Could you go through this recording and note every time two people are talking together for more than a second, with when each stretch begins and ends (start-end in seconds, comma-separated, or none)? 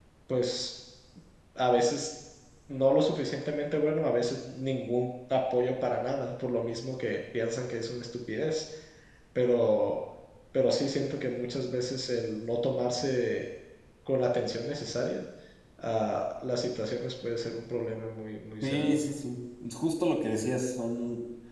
none